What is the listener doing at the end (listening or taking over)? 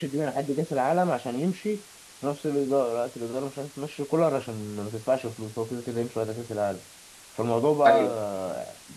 listening